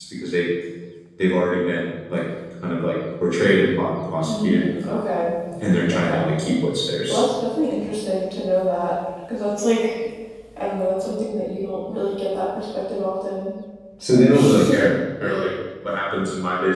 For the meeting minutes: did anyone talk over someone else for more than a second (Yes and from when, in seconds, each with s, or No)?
No